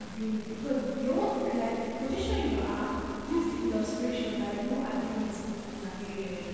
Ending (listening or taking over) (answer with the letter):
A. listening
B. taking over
A